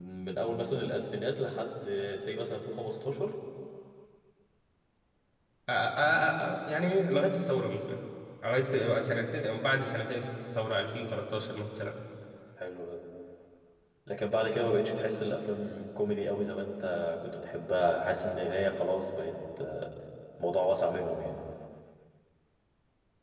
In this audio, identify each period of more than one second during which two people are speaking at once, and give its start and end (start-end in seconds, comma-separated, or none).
none